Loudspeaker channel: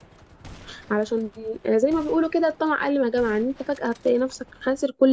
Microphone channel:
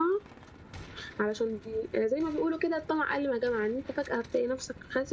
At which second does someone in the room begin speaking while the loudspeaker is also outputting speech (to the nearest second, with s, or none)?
none